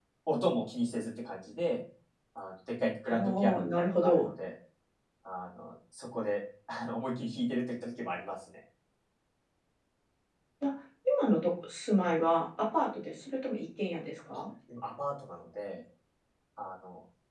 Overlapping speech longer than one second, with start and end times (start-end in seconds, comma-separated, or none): 3.1-4.3